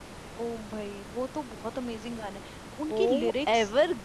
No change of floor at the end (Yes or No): No